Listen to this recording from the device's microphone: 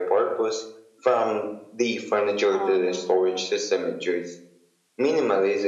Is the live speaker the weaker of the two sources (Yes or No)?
Yes